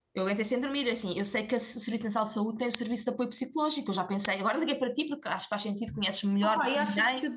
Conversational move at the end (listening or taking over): taking over